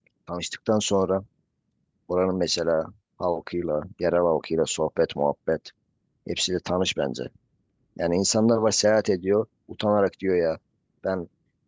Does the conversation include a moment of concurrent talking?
No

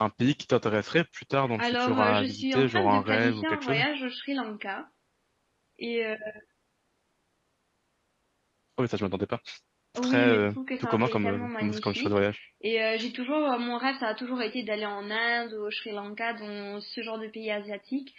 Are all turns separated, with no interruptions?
No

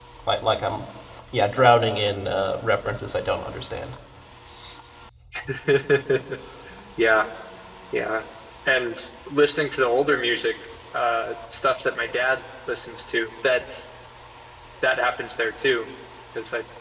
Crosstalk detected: No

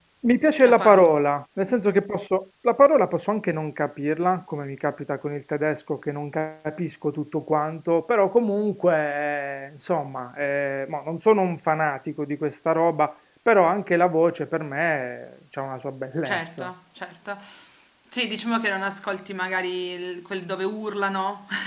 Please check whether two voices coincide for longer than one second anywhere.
No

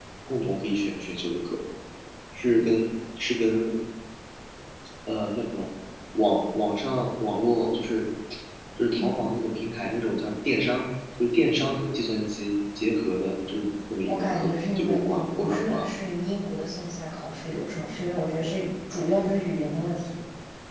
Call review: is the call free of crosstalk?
No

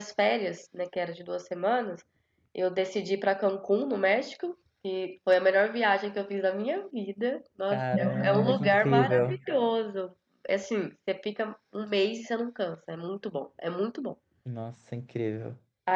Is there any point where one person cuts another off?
Yes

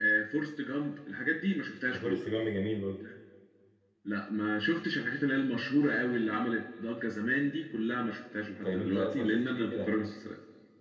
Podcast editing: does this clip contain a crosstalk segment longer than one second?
Yes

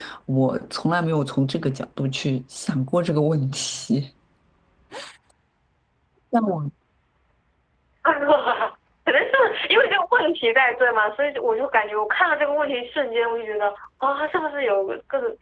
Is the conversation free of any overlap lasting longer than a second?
Yes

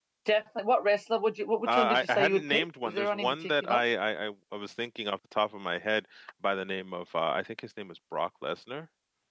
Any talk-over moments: Yes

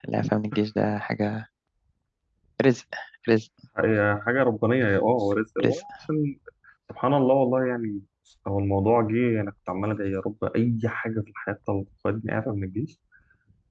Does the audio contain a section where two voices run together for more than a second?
No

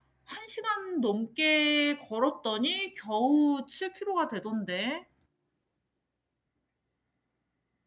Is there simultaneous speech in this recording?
No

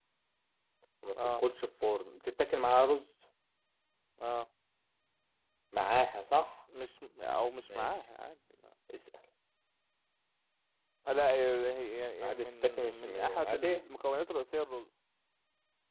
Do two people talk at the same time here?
Yes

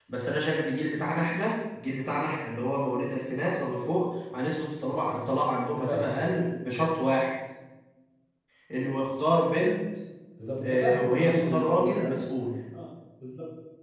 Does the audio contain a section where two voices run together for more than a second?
Yes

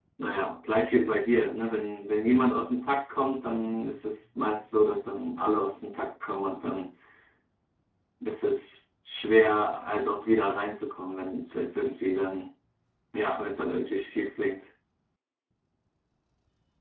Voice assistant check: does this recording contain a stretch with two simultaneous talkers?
No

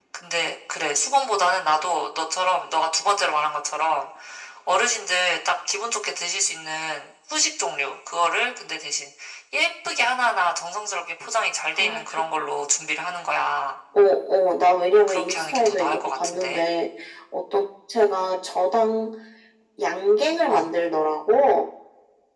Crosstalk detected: Yes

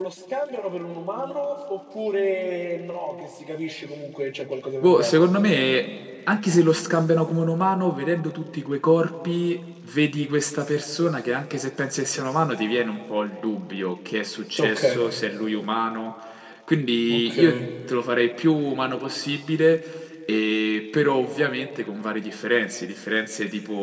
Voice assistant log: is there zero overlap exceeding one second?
Yes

